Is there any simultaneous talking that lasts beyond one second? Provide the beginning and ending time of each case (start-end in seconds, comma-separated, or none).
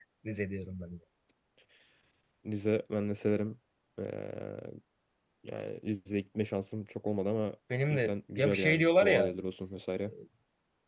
7.9-9.3